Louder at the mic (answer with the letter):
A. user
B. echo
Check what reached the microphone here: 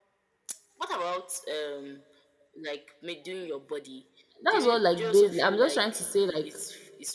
A